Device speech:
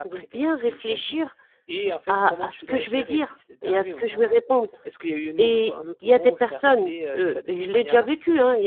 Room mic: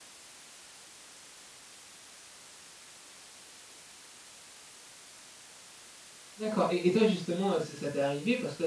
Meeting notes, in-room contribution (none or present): present